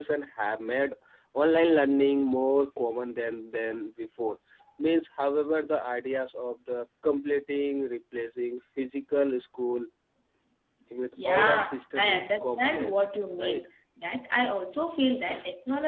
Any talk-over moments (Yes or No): Yes